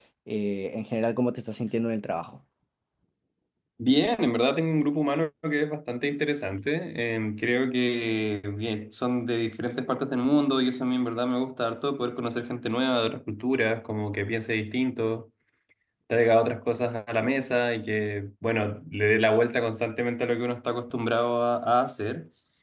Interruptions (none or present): none